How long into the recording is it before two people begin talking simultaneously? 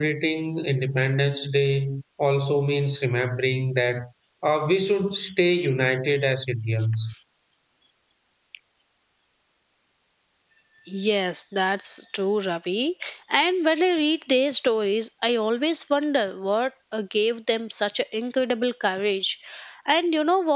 none

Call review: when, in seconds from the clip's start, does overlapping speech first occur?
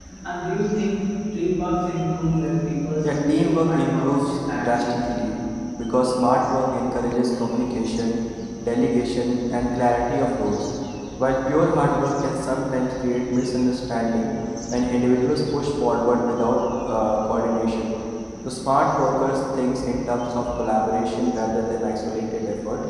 3.0 s

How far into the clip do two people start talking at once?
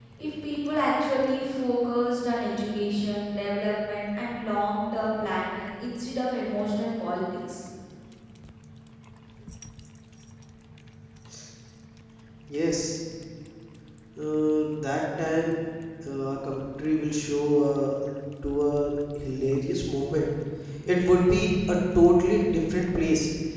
none

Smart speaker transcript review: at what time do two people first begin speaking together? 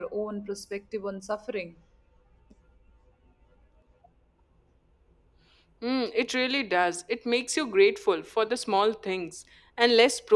none

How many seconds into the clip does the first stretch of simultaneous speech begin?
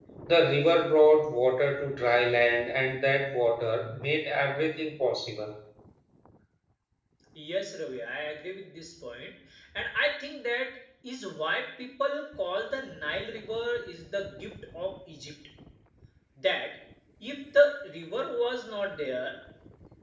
none

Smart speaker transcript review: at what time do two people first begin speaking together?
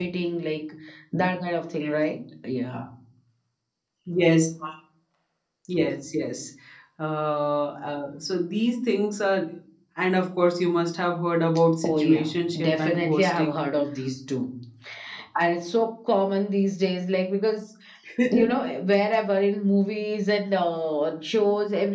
11.8 s

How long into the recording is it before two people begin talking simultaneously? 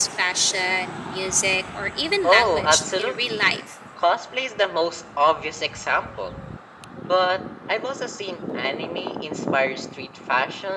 2.2 s

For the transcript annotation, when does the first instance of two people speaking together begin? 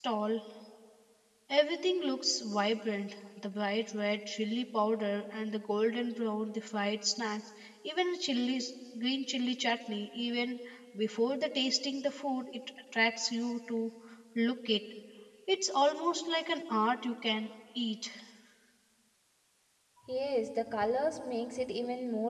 none

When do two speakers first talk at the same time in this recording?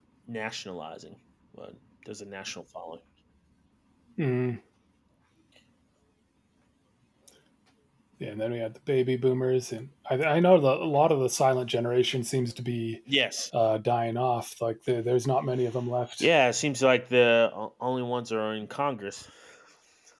none

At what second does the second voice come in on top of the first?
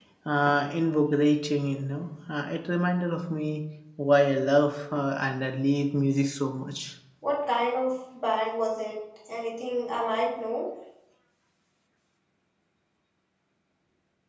none

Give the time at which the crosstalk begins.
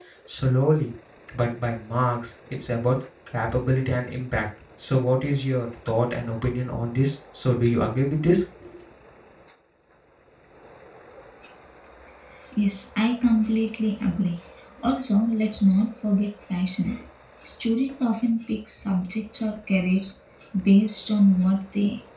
none

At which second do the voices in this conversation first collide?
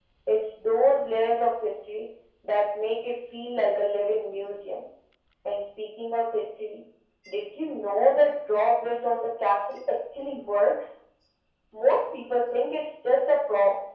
none

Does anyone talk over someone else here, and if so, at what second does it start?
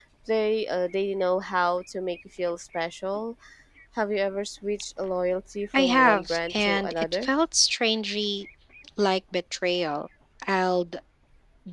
5.7 s

